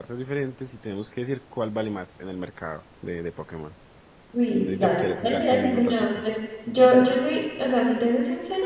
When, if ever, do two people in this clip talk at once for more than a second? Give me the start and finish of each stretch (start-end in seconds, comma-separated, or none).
4.7-6.2